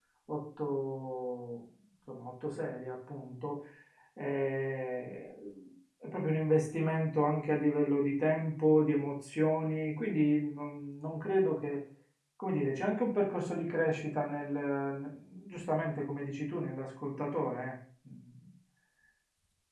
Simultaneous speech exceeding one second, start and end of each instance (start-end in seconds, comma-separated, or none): none